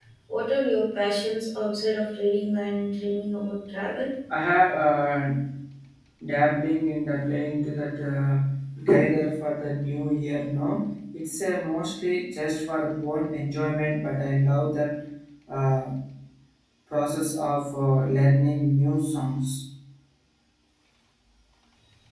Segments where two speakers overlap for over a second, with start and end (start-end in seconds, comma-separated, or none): none